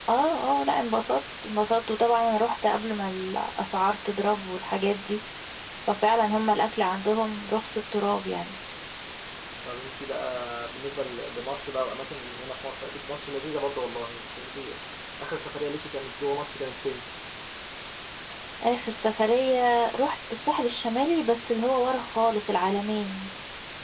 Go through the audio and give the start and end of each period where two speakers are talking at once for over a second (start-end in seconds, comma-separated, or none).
none